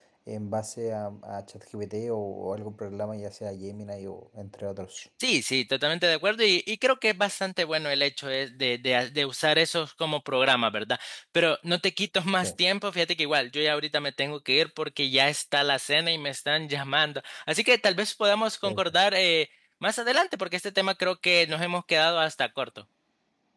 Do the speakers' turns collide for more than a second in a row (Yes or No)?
No